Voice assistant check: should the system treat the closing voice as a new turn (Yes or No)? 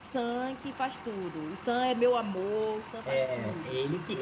Yes